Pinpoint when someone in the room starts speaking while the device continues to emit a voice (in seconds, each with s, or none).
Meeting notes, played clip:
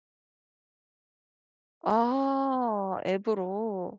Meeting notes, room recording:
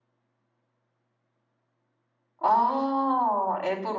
none